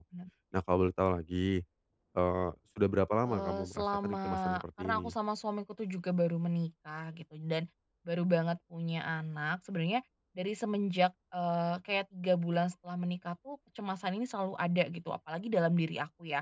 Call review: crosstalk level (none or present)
present